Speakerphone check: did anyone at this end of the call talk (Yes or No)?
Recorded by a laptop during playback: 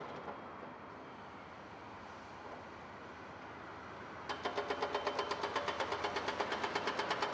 No